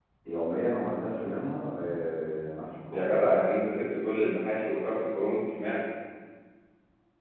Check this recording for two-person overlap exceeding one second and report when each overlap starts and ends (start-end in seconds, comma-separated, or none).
none